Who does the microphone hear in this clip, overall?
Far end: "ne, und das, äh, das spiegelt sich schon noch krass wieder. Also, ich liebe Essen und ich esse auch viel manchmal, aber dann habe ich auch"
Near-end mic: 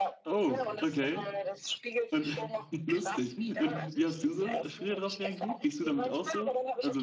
both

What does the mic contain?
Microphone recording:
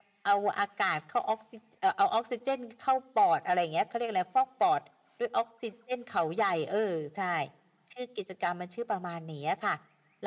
echo only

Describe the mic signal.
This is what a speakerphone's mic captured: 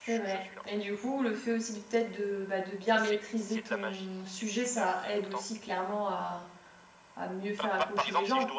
both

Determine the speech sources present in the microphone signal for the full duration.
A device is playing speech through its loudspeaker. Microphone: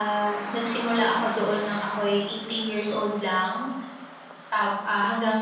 echo only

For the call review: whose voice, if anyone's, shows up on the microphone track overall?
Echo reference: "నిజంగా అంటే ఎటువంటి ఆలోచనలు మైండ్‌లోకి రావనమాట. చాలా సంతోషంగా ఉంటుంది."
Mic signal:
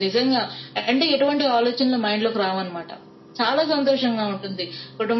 echo only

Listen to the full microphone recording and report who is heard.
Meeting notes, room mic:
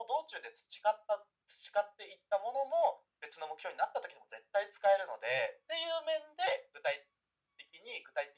echo only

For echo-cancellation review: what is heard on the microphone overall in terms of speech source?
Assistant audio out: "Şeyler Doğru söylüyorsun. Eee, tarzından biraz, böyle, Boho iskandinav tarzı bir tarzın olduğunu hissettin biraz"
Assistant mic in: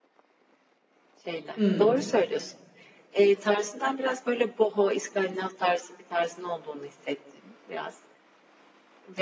both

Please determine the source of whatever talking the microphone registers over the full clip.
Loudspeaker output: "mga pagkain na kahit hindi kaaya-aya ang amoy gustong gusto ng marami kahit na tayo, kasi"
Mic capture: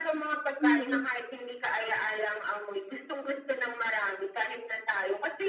both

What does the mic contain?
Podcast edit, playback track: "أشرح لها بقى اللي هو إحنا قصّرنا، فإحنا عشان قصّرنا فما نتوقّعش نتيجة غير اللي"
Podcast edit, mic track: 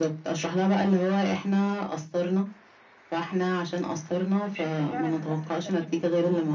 both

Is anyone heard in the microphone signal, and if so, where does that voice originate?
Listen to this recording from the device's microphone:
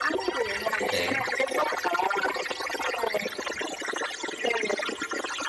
both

